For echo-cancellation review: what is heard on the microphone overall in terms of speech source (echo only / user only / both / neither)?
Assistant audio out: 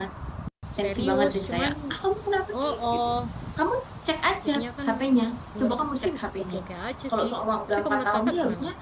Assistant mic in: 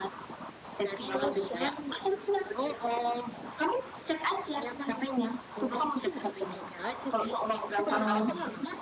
both